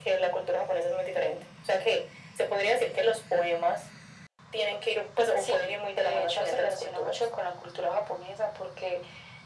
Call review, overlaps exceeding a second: present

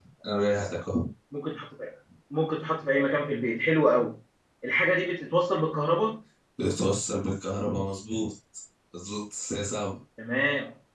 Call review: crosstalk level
none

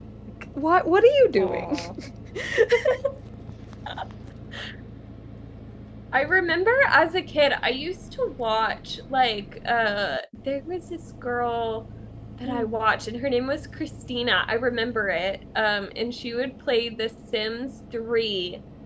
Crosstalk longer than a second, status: none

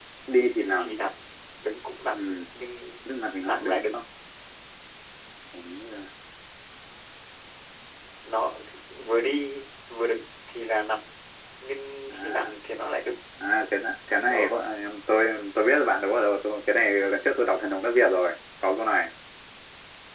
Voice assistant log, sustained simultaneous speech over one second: none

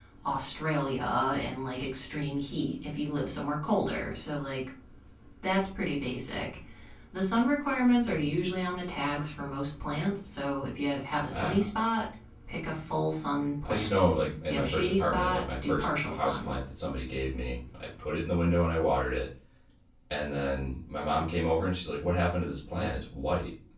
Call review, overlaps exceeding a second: present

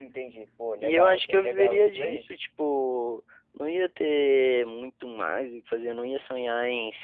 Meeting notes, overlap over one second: present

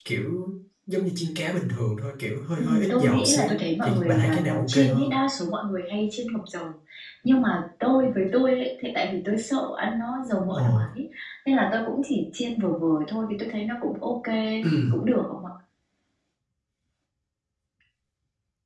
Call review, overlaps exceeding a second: present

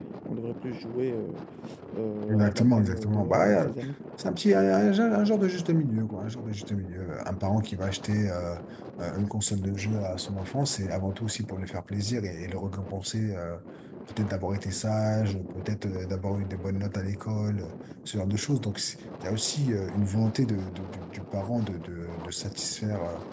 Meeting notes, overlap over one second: present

